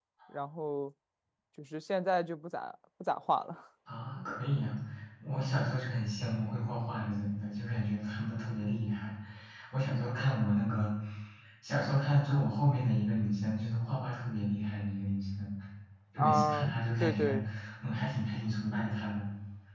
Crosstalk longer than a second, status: present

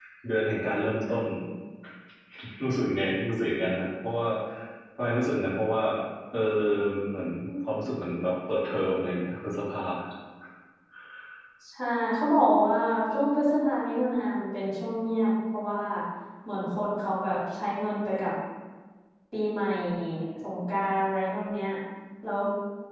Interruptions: none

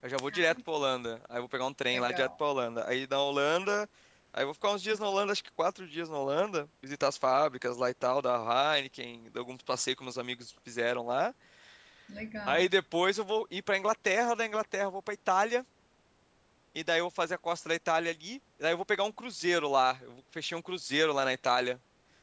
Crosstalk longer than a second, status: none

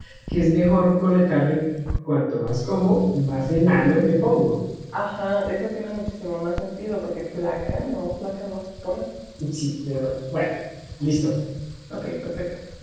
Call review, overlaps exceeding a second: none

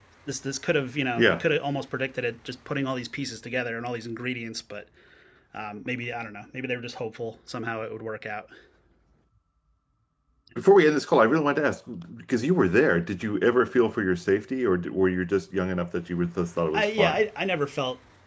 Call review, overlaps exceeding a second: none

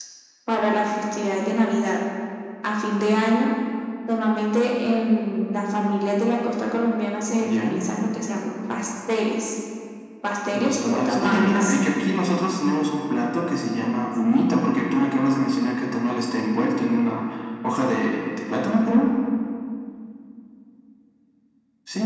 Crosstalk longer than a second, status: present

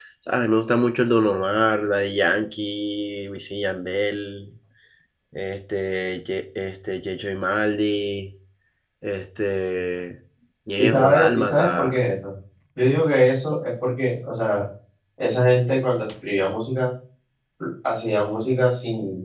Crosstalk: present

